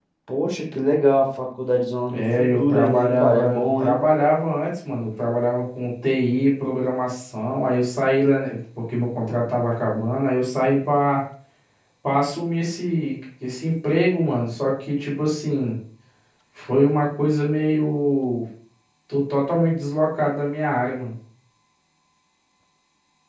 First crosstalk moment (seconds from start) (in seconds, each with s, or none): 2.1 s